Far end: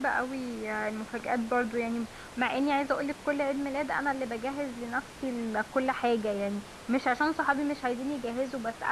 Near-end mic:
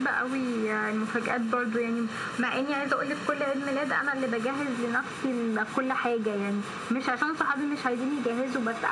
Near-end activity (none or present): none